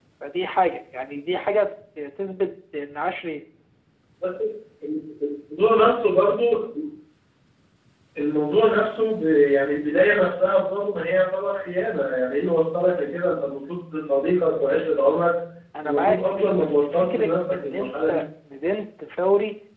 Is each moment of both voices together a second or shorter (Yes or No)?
No